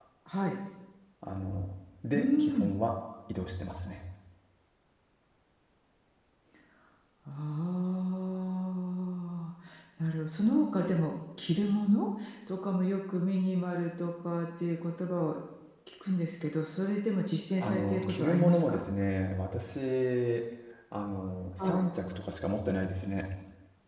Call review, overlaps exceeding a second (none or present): present